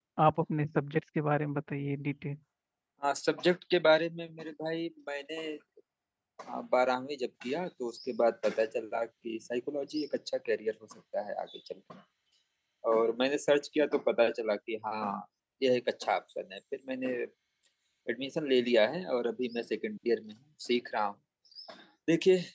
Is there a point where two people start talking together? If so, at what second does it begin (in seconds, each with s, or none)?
none